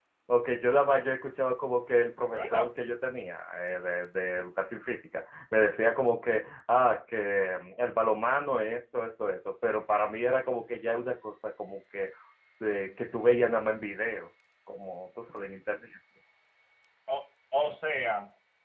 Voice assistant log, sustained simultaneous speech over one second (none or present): none